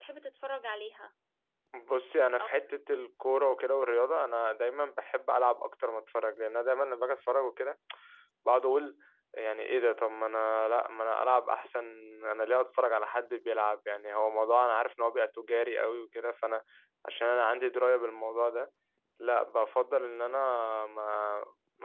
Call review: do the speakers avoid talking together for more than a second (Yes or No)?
Yes